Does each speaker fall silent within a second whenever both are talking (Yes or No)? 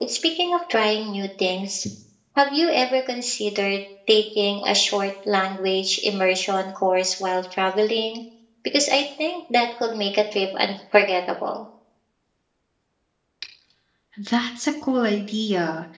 Yes